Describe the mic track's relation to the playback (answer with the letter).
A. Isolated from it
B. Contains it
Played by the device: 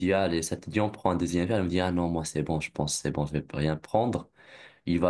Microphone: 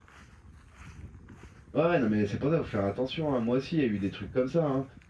A